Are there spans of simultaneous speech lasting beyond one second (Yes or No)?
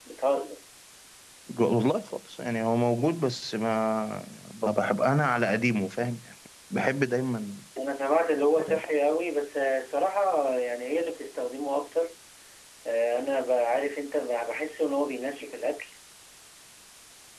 No